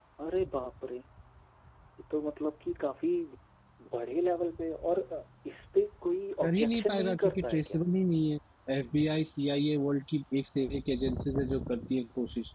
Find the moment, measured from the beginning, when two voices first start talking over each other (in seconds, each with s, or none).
6.4 s